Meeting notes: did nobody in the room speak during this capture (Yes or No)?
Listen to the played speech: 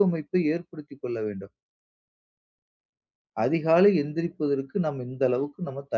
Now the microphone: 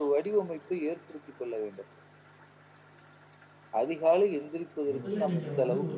No